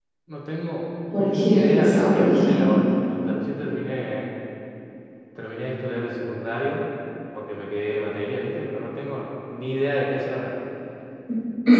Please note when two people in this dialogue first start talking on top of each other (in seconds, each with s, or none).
1.1 s